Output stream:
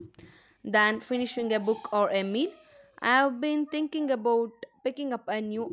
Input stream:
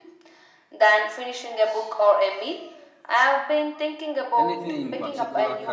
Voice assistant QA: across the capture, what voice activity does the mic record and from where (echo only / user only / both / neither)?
both